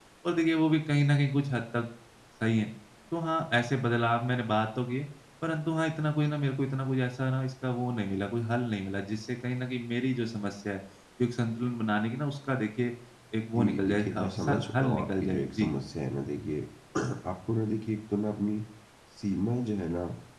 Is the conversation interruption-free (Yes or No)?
No